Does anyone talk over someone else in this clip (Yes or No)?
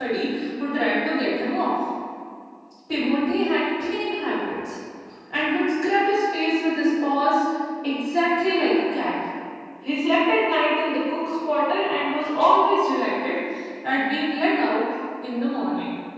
No